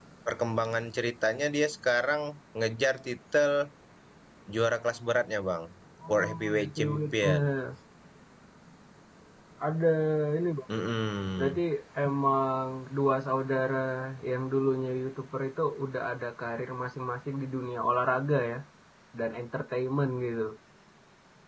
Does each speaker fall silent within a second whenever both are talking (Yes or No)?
No